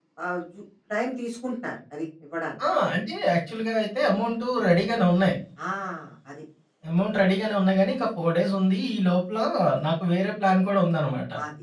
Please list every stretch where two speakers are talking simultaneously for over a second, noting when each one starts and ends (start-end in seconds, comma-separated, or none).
none